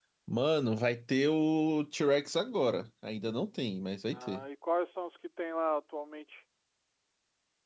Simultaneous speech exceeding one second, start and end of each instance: none

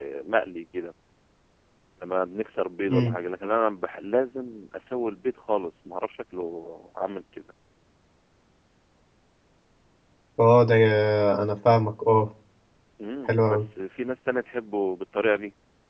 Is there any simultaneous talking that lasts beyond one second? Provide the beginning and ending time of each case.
none

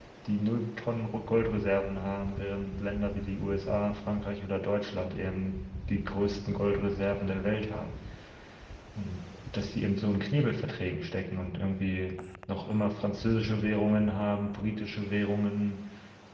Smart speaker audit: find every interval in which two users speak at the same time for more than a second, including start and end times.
none

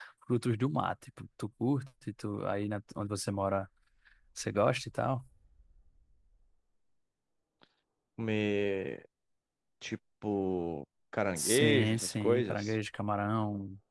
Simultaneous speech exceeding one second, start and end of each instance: 11.4-12.8

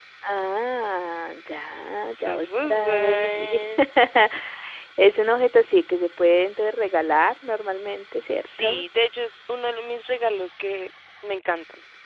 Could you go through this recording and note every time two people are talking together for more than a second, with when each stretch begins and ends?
2.1-3.6

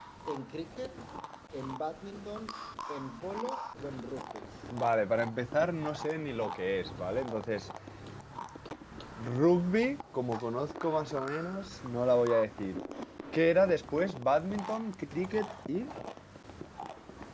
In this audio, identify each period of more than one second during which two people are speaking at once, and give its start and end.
none

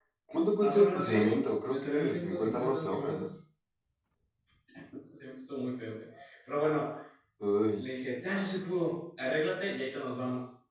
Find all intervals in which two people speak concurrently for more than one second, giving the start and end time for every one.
0.6-3.3

